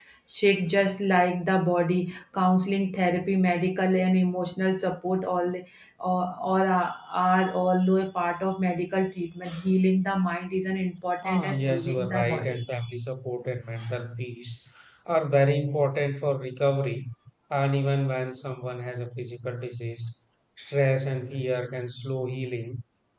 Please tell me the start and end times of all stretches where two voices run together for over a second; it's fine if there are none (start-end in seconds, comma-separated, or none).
11.2-12.6